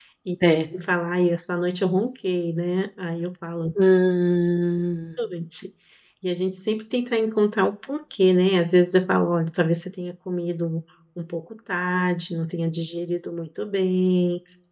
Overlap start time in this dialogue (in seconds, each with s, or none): none